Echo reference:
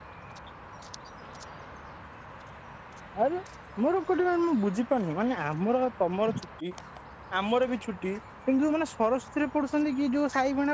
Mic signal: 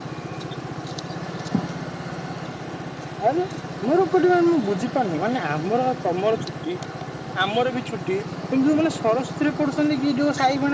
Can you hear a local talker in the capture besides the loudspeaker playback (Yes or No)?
No